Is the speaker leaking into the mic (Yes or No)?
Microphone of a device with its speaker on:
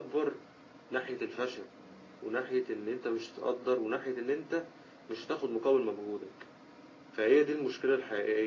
Yes